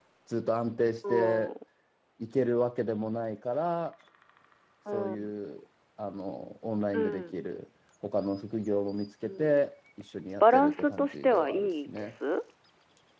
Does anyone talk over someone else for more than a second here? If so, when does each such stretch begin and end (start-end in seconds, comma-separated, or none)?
10.4-12.2